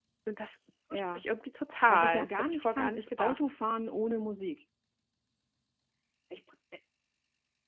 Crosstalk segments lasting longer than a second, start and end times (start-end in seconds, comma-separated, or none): 1.9-3.5